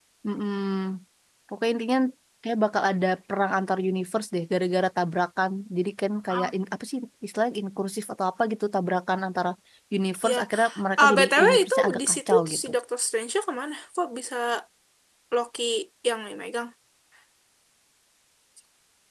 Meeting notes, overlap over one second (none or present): present